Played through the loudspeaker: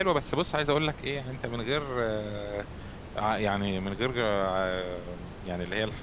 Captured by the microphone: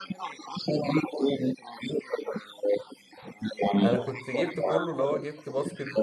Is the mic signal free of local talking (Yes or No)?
No